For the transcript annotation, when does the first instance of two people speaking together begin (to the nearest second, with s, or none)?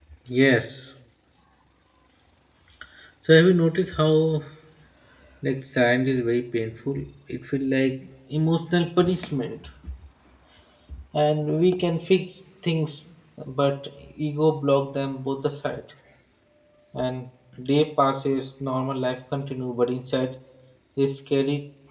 none